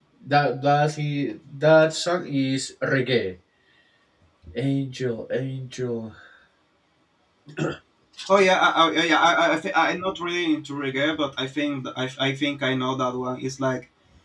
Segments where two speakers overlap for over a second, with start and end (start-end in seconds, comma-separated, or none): none